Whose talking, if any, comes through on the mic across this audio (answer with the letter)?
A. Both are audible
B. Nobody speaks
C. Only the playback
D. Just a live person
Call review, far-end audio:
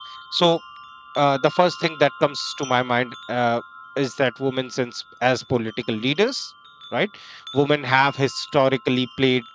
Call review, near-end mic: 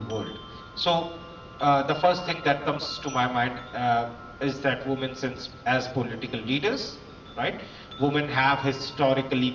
C